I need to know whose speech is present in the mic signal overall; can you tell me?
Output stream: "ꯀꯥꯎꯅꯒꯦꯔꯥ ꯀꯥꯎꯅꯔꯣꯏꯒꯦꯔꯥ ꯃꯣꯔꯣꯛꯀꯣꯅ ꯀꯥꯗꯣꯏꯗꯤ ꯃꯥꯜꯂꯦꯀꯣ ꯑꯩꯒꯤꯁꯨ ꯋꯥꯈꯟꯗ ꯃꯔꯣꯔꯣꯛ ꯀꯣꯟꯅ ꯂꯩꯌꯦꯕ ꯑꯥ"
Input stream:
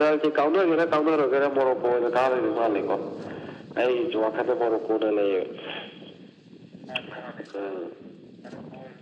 echo only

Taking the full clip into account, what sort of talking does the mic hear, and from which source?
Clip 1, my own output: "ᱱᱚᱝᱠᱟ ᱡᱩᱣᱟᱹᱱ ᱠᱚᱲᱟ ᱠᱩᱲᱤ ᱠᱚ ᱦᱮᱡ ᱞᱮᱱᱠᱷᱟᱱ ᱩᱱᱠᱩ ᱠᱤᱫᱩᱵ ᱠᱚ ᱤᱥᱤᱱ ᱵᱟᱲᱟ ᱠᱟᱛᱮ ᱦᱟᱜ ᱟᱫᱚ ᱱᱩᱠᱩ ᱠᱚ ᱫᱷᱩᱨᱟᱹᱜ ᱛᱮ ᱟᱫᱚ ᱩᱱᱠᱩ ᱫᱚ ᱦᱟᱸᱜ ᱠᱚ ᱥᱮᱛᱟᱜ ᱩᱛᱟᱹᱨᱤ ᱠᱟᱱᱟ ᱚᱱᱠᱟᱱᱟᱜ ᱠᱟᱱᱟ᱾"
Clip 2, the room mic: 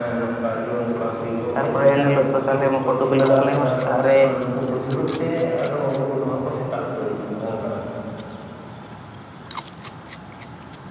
both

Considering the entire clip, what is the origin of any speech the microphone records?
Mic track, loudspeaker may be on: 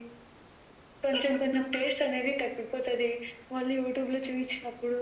echo only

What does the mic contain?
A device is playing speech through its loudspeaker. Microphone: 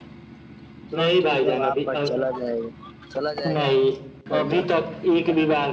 both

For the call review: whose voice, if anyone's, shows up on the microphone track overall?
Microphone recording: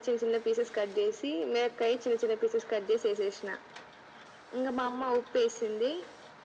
echo only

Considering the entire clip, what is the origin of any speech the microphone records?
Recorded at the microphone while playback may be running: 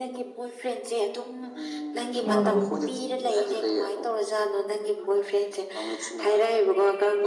both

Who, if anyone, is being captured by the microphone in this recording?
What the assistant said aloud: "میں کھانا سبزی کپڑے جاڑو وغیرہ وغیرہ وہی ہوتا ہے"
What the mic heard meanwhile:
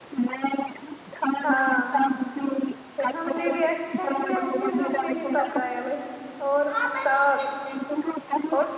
both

